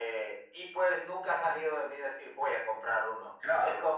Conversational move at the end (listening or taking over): listening